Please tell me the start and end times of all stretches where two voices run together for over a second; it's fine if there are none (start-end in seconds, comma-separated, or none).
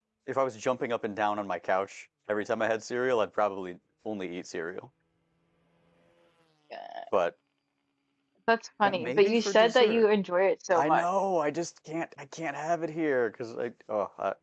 8.8-10.0